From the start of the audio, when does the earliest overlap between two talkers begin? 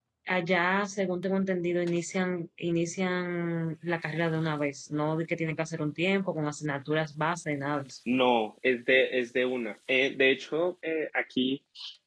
none

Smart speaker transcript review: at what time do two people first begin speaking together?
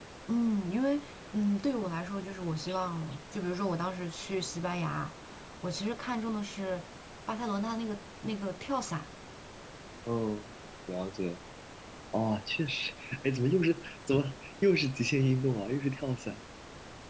none

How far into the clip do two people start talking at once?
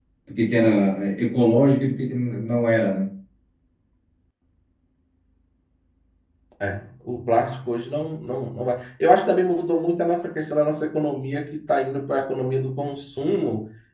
none

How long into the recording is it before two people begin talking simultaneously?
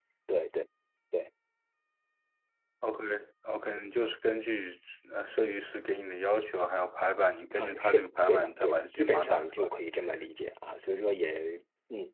7.6 s

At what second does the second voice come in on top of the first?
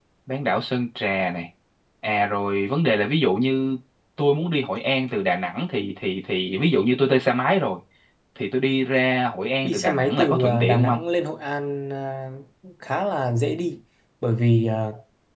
9.6 s

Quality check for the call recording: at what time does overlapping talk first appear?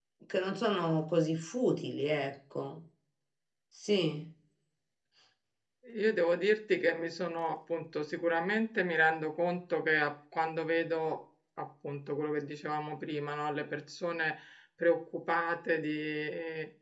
none

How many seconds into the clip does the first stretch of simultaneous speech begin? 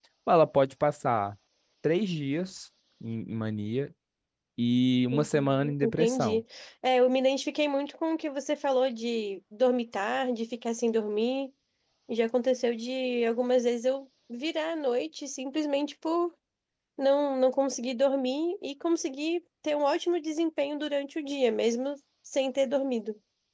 5.1 s

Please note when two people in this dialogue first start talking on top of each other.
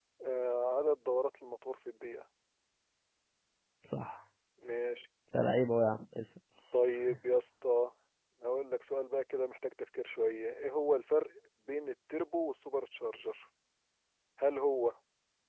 none

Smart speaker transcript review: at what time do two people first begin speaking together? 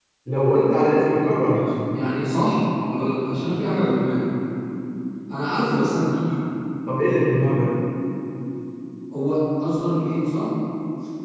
none

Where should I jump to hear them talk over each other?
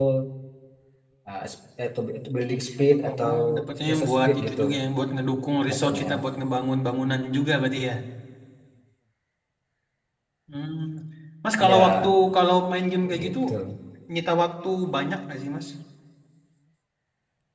3.0 s

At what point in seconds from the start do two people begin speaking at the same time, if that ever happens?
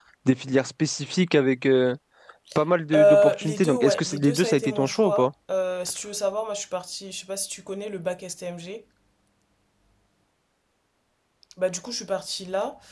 3.0 s

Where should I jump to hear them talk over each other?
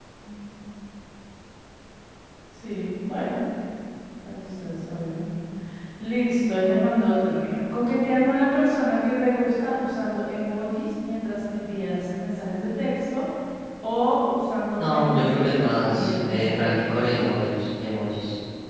14.8 s

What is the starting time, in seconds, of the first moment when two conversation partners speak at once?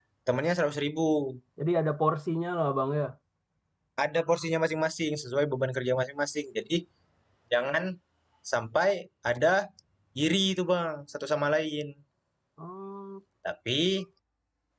none

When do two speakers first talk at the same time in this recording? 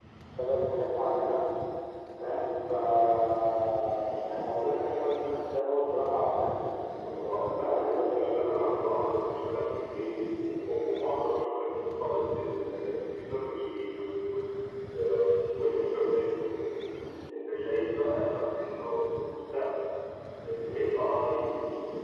7.0 s

